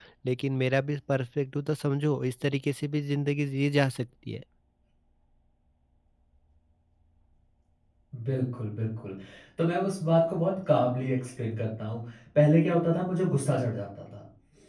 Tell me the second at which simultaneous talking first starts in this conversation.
none

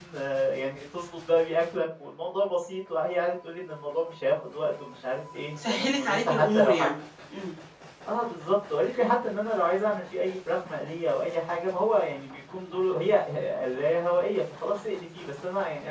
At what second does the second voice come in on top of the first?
6 s

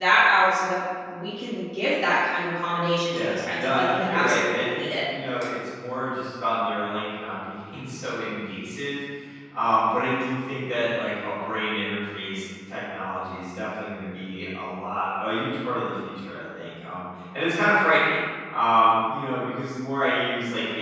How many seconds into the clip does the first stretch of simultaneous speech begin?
3 s

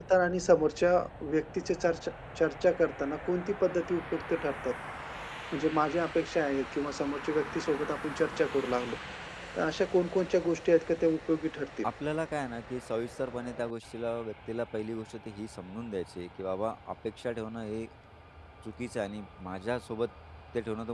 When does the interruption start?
none

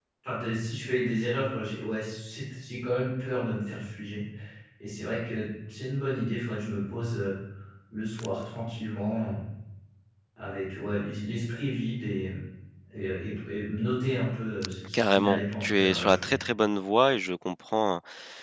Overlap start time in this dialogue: 15 s

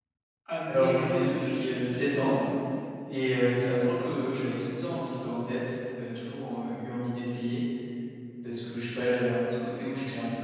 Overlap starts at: 1 s

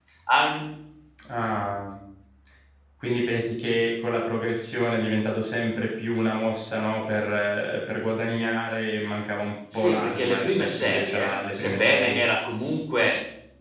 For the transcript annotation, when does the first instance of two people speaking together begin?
10 s

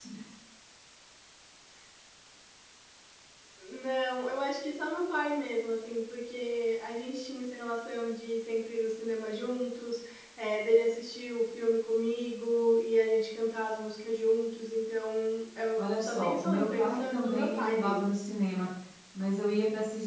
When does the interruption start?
16 s

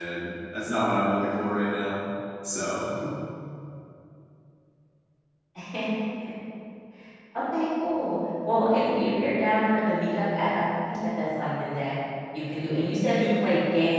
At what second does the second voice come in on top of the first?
none

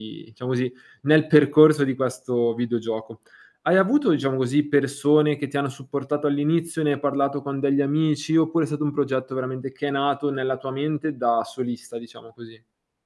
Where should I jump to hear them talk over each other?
none

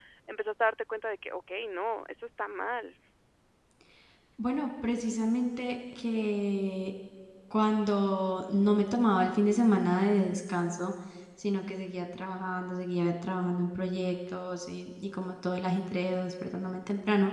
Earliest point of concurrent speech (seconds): none

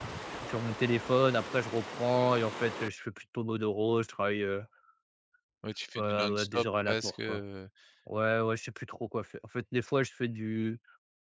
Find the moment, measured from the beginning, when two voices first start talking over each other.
6 s

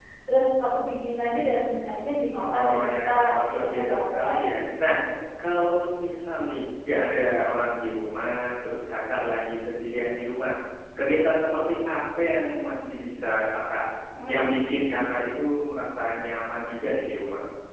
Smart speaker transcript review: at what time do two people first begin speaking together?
2 s

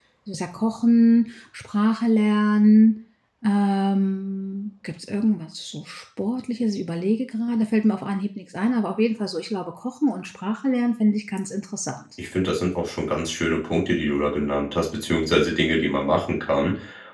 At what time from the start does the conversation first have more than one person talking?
none

